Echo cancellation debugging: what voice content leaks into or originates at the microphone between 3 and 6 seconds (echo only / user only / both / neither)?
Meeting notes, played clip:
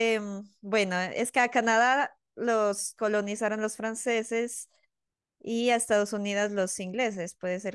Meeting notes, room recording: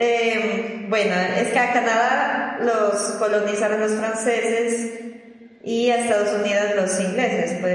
echo only